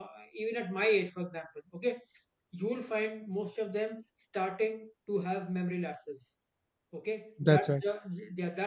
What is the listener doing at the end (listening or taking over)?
listening